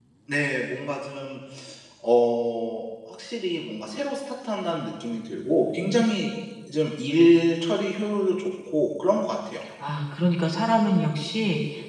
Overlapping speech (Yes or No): No